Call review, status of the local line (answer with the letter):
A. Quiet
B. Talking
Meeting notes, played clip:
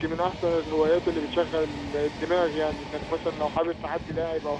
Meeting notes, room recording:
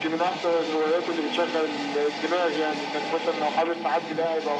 A